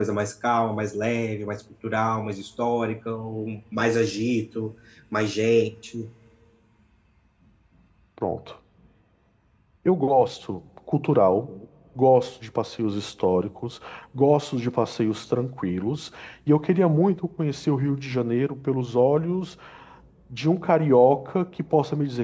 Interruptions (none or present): none